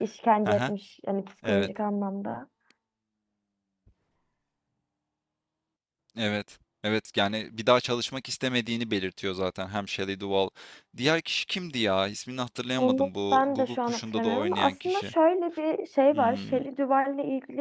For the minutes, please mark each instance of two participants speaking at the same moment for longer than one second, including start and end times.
12.8-15.1

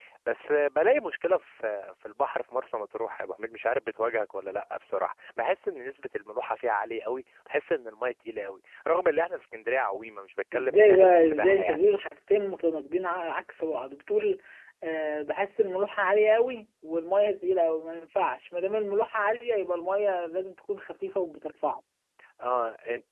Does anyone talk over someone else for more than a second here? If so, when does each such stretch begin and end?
10.5-11.8

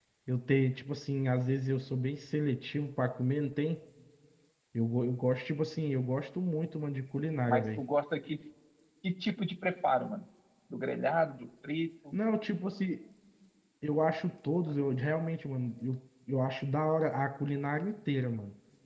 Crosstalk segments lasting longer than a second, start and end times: none

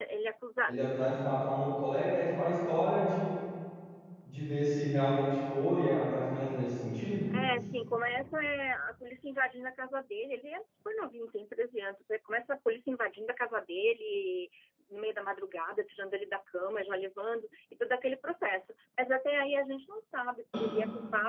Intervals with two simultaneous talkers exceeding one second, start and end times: none

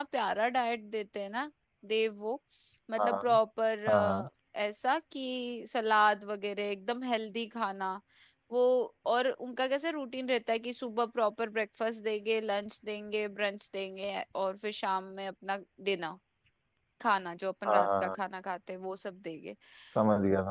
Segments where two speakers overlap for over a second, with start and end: none

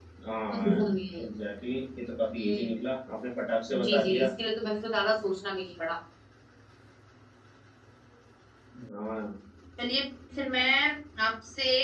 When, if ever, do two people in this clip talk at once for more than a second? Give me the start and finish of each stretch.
none

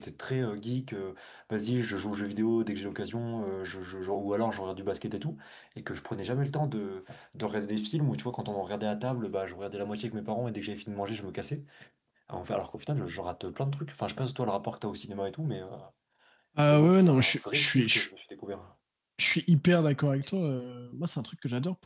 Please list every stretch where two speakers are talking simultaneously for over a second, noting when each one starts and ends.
16.7-18.1

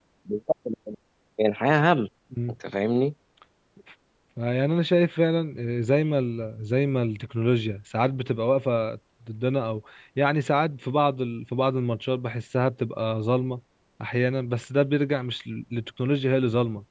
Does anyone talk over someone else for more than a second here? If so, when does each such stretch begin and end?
none

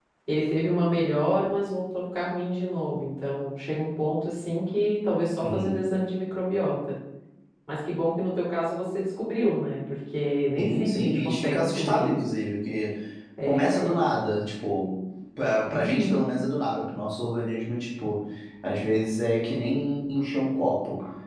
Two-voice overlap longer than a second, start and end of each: 10.6-12.0

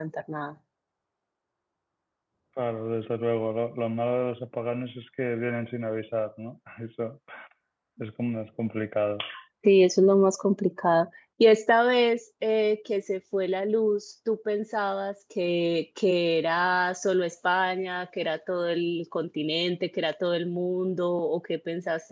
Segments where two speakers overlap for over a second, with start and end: none

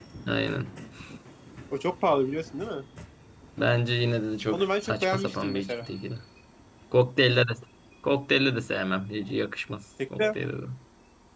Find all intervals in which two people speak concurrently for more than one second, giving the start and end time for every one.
4.5-5.8

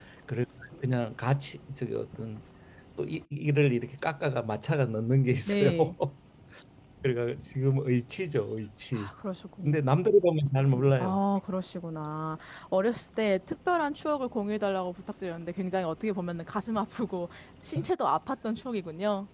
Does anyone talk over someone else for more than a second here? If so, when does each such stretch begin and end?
none

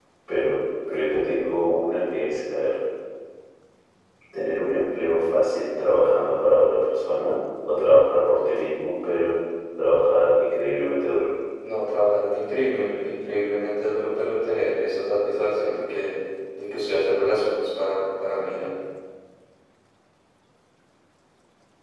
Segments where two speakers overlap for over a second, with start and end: none

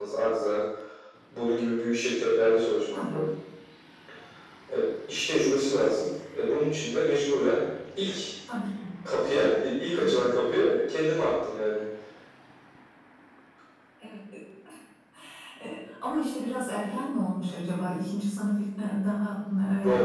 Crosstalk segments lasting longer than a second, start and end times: none

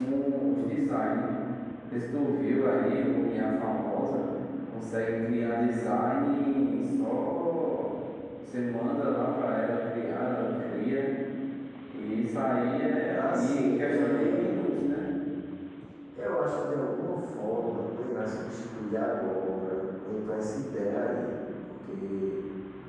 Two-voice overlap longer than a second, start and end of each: 13.1-14.4

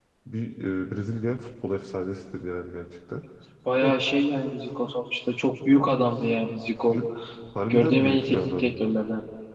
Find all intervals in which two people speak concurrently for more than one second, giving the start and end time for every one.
7.7-9.0

